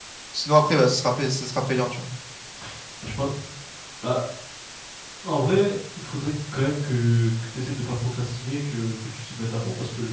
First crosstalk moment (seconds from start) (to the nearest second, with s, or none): none